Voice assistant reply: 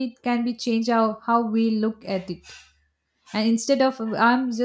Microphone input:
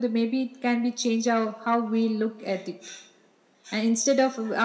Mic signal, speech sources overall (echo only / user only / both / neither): echo only